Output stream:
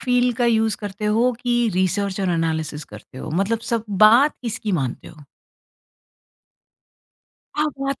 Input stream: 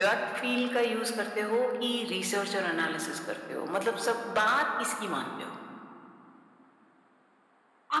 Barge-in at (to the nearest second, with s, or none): none